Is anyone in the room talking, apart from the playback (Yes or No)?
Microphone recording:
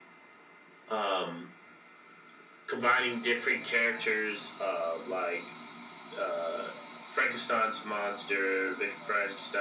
No